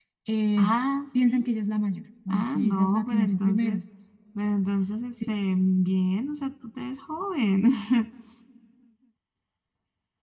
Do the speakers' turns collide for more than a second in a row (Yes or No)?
Yes